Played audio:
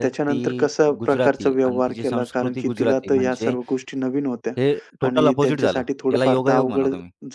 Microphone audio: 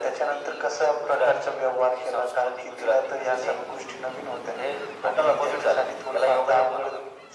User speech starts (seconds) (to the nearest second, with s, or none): none